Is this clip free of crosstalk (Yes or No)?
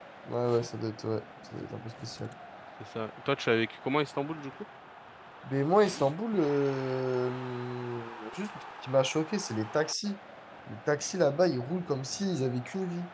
Yes